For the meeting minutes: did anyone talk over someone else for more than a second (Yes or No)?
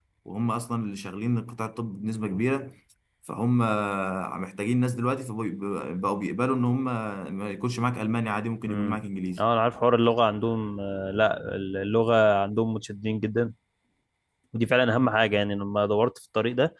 No